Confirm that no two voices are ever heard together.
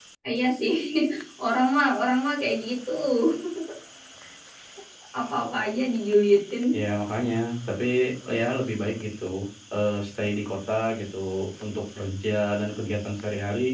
Yes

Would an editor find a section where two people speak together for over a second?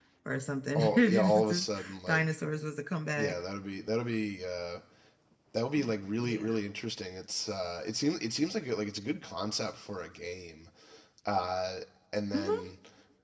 Yes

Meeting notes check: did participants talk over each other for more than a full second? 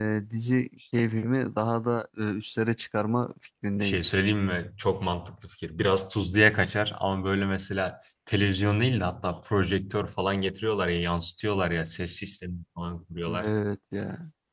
No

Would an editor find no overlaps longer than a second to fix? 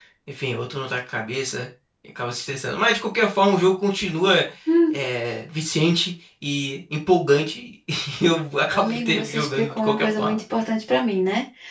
No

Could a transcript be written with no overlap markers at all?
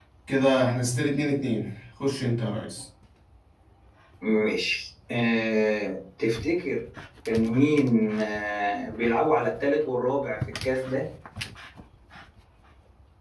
Yes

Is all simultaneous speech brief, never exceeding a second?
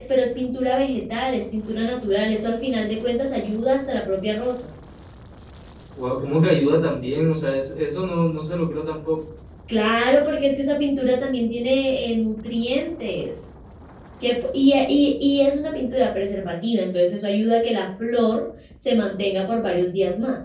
Yes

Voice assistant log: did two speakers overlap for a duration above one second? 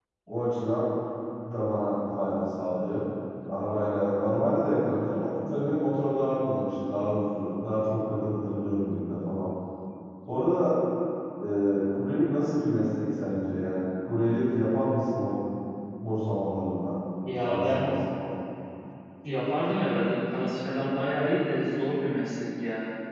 No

